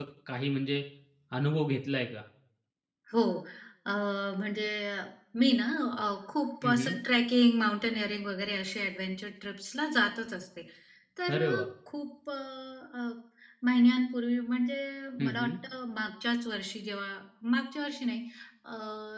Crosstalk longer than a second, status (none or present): none